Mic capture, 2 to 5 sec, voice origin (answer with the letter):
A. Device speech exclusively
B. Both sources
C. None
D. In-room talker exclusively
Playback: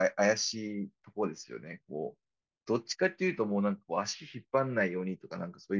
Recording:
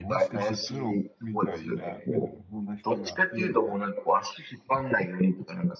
B